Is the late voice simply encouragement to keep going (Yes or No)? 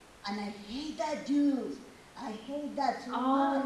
No